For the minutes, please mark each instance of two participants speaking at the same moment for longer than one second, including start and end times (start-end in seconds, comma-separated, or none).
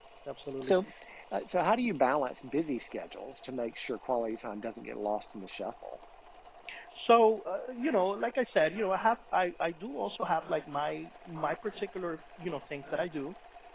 none